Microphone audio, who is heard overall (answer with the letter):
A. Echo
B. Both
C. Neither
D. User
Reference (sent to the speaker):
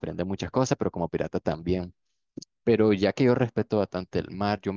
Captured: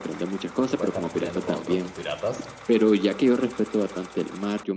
B